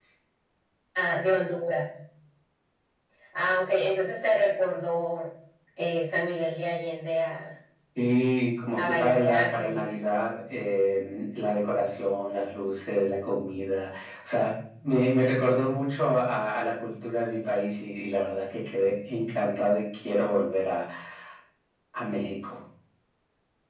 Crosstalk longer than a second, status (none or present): present